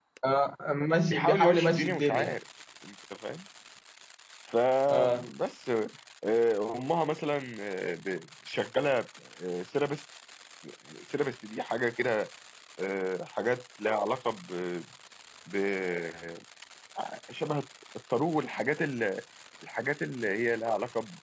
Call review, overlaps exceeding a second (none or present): present